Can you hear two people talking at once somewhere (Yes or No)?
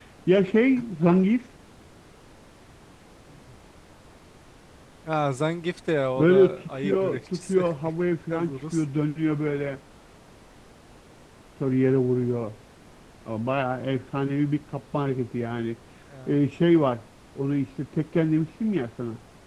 Yes